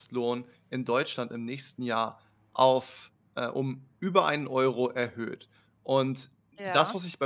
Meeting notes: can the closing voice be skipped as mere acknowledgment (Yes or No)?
Yes